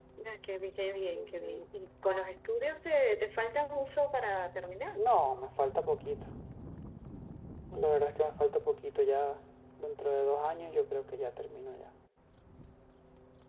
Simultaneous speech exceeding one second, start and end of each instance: none

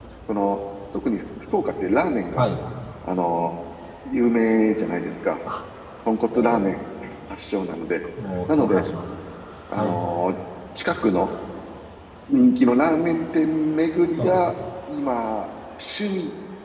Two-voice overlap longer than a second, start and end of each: none

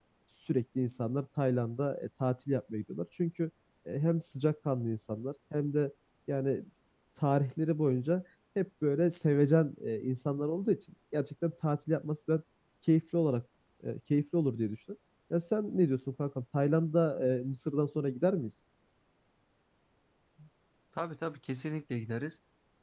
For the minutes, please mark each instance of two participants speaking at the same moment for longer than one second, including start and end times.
none

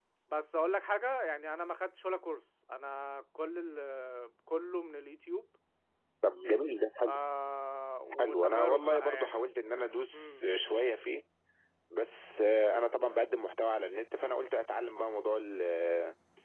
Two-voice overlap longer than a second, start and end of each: 8.2-9.5

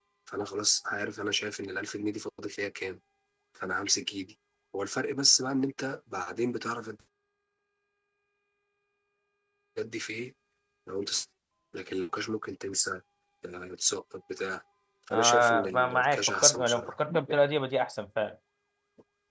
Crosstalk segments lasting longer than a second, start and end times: 15.1-16.9

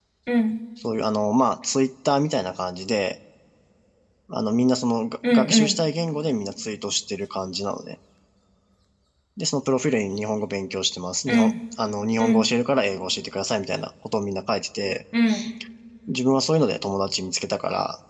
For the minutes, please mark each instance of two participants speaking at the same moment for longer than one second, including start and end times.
none

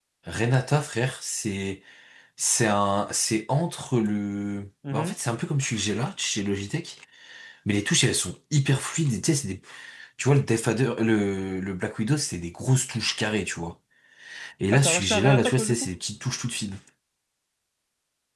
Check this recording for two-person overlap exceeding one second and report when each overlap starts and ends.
14.7-15.9

